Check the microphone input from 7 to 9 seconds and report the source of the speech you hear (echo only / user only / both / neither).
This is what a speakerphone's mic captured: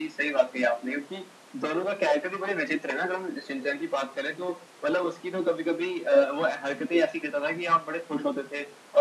echo only